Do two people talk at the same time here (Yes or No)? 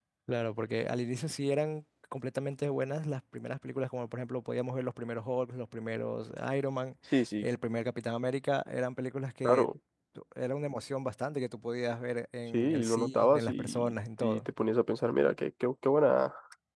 Yes